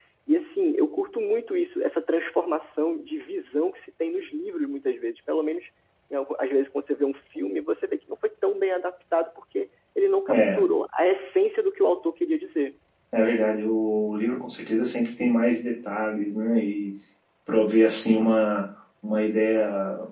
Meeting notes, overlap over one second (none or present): none